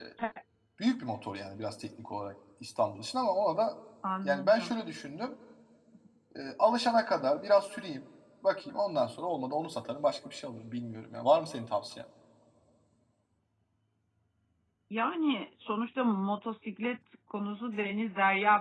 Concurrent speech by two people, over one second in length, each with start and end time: none

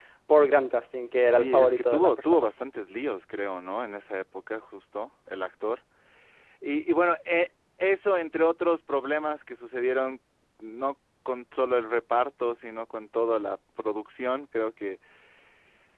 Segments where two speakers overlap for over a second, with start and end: 1.3-2.5

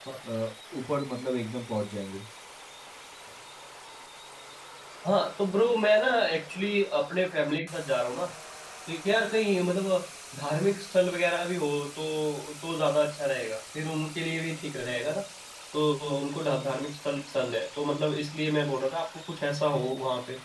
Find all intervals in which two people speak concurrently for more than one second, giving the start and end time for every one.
none

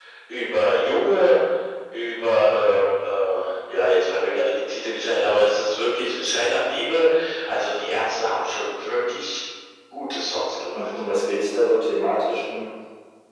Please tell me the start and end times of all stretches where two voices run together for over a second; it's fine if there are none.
none

